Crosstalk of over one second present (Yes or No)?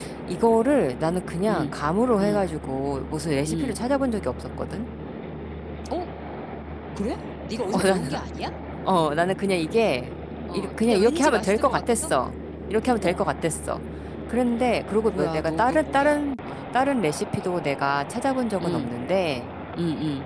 Yes